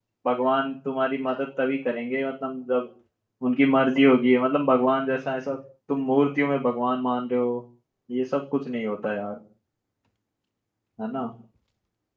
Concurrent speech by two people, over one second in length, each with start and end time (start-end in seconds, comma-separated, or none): none